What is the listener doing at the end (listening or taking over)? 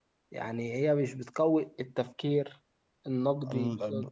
taking over